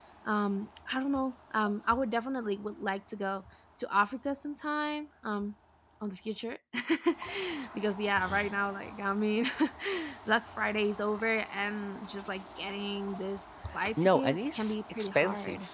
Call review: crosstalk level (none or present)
present